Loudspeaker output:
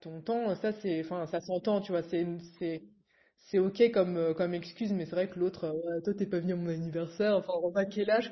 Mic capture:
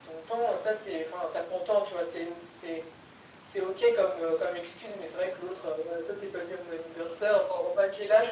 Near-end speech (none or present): none